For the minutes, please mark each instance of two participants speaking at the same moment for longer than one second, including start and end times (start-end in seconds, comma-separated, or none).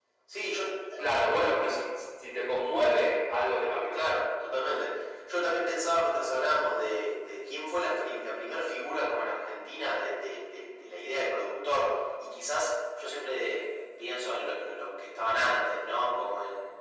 none